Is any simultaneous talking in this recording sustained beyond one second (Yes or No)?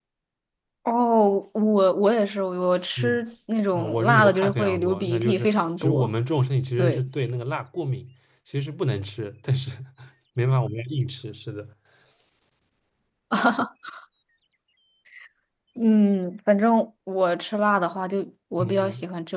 Yes